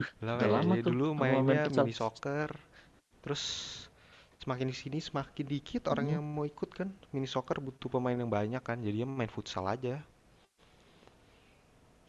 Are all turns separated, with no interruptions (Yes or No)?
No